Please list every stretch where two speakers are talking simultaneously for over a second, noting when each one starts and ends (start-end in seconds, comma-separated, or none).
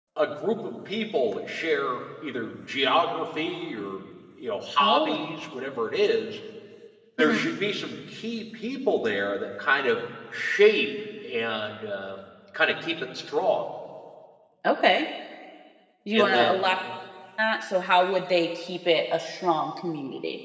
none